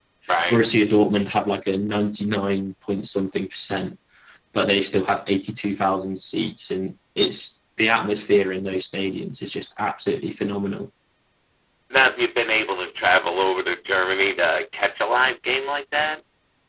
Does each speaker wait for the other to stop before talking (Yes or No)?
Yes